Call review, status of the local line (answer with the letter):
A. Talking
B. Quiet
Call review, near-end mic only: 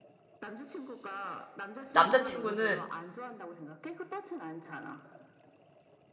A